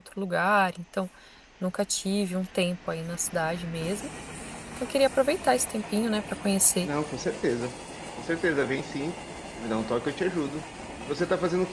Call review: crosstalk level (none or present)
none